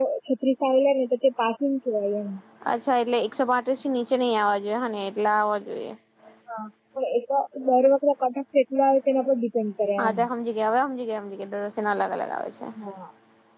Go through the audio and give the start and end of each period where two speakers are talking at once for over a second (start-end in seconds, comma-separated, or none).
none